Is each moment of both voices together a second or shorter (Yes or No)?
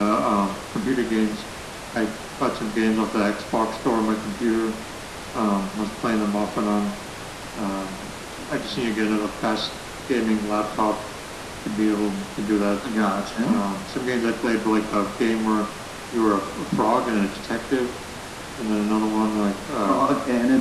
Yes